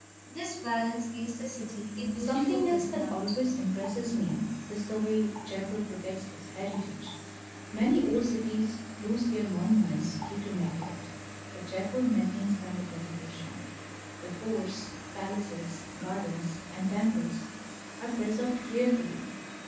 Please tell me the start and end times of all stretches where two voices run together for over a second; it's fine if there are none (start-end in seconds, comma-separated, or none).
2.1-3.4